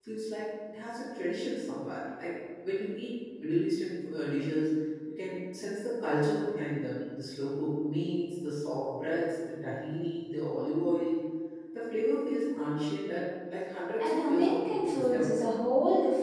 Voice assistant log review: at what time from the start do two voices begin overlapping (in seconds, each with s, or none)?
14.0 s